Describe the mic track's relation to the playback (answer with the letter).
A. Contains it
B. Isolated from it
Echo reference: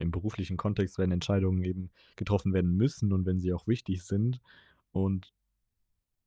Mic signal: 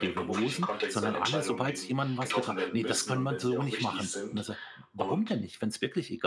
A